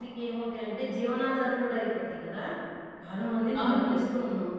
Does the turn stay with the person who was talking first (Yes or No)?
Yes